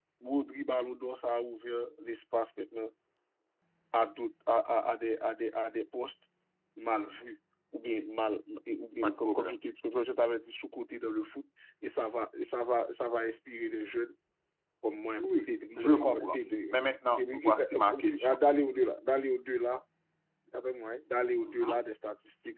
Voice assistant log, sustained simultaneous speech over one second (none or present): present